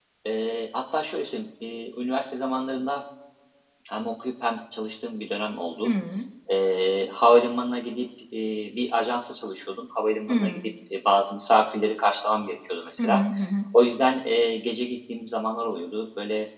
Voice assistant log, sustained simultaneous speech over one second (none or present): none